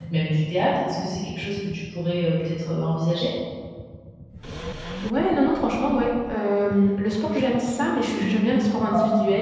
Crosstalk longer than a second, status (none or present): none